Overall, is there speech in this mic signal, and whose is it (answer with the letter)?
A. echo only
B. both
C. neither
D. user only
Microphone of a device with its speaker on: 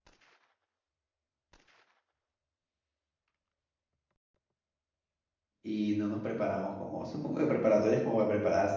D